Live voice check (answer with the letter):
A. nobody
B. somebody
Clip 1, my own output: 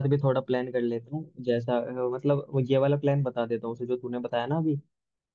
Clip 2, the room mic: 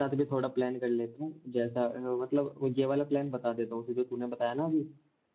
A